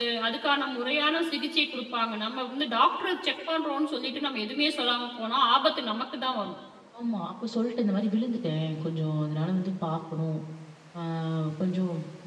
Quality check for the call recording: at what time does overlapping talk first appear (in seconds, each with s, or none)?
none